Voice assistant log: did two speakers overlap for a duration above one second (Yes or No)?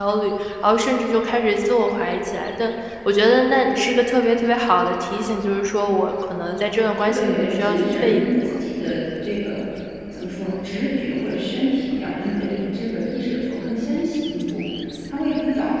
Yes